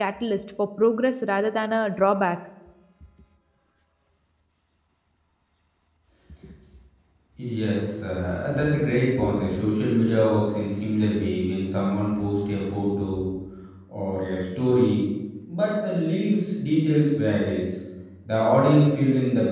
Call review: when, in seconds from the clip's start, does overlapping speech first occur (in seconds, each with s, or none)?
none